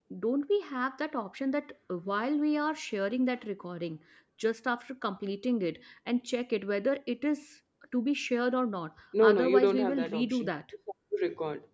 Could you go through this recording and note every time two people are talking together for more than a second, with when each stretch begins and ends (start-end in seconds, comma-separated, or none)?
9.2-10.5